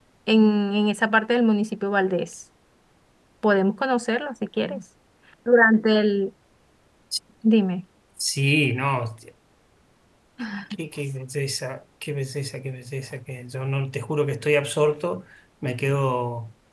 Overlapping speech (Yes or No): No